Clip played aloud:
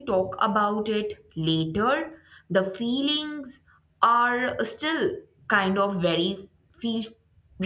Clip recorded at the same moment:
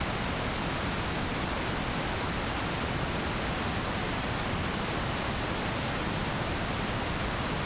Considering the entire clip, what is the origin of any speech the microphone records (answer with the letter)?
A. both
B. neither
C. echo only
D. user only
B